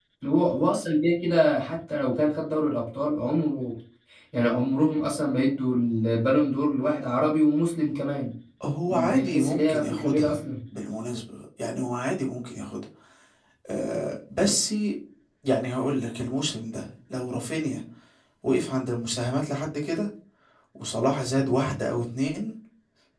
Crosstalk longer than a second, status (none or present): present